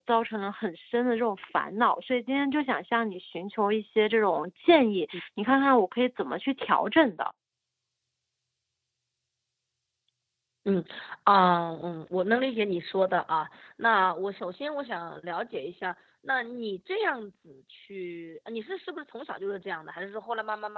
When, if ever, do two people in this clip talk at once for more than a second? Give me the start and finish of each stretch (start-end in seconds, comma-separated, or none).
none